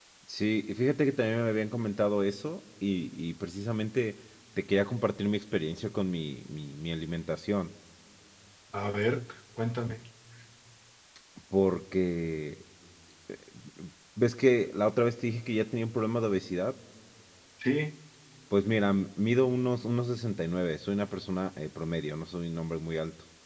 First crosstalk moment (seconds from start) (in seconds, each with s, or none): none